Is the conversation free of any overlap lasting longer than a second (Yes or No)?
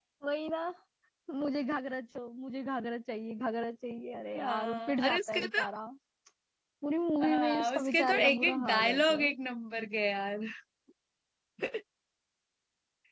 No